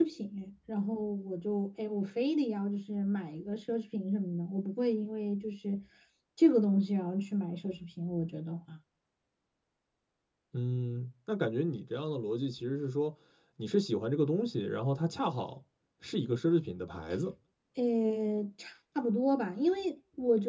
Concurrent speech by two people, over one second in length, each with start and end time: none

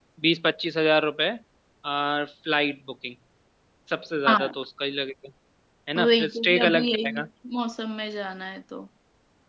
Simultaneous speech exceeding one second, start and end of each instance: 6.0-7.3

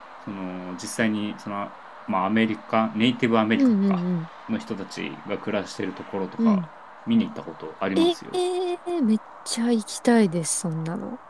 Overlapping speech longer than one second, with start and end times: none

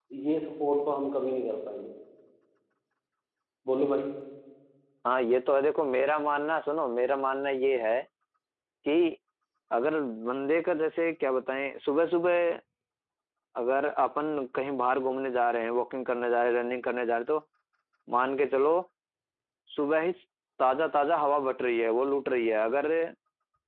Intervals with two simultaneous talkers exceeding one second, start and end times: none

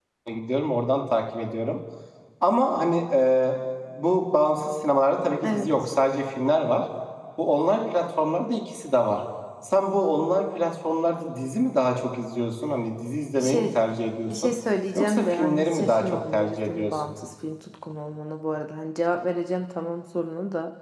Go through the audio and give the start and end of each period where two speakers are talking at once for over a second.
14.9-17.1

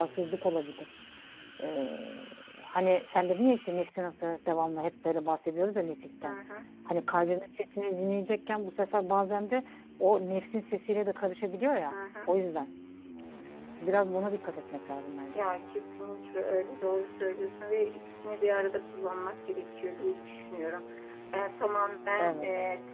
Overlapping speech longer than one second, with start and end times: none

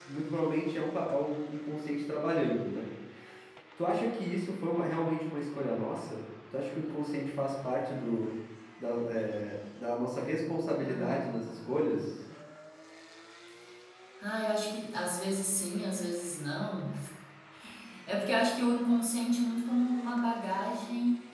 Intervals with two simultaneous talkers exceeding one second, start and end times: 10.8-12.1

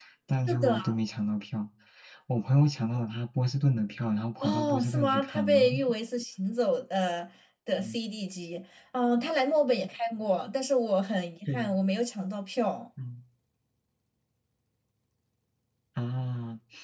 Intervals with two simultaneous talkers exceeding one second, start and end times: 4.4-5.6

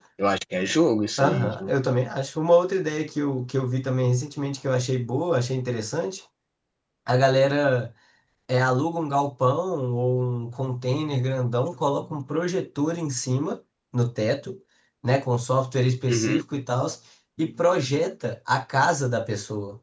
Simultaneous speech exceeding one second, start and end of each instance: none

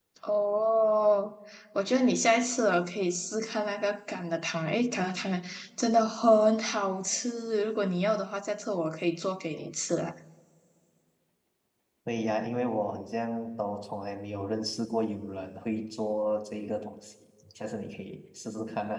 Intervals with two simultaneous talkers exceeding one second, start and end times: none

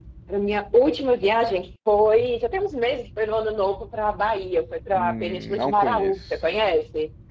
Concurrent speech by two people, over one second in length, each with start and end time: 4.9-6.4

